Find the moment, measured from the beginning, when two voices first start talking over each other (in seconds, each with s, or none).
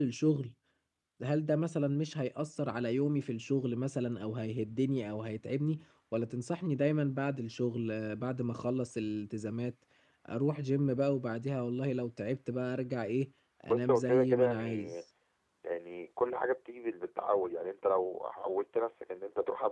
13.7 s